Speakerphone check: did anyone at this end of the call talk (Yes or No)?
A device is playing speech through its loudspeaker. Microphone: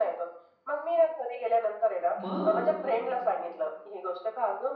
Yes